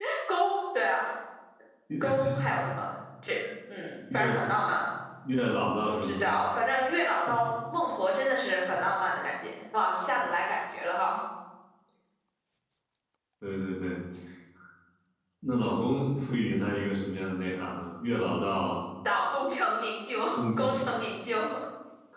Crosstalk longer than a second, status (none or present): none